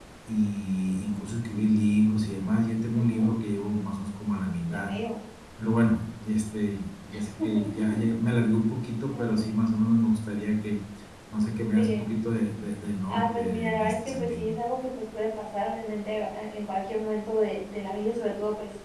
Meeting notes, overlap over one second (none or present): present